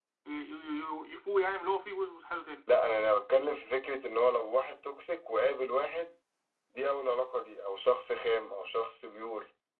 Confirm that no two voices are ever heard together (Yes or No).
Yes